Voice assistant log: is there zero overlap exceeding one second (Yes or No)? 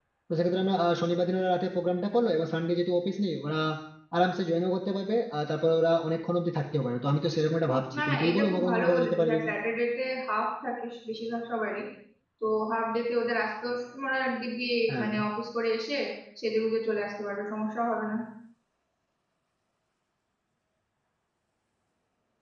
No